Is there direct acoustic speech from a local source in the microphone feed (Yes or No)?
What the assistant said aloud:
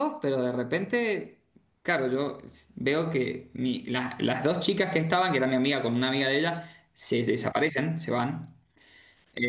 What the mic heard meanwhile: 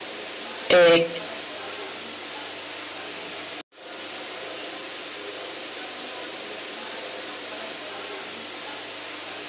Yes